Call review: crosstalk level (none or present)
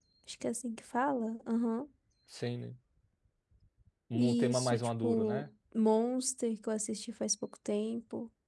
present